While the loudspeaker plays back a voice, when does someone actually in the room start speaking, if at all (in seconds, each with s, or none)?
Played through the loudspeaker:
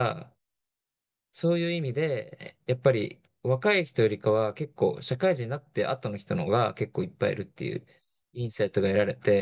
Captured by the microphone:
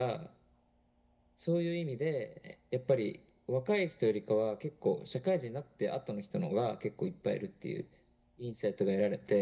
none